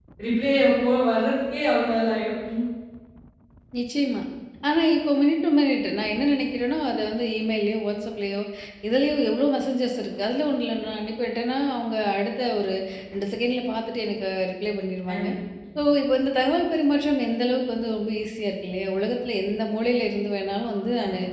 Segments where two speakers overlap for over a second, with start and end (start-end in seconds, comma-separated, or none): none